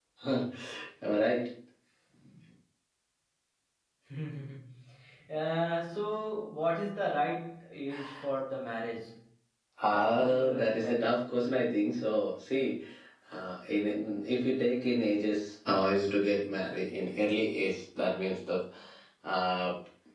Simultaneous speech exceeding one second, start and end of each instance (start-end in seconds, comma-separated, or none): 9.9-11.2